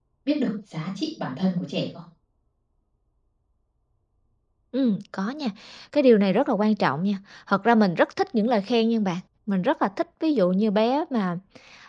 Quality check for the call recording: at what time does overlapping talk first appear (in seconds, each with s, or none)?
none